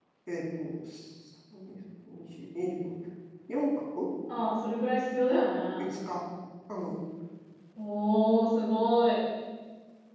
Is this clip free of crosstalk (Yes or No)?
Yes